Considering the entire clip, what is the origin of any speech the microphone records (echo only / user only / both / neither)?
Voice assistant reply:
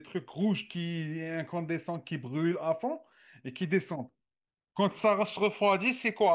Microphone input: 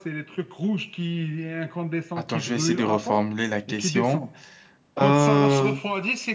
both